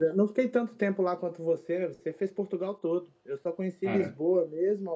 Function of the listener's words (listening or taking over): listening